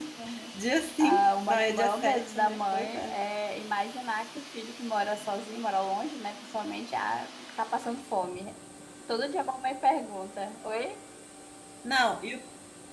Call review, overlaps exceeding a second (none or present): present